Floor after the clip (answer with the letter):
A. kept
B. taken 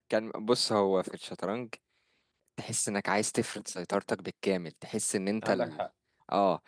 A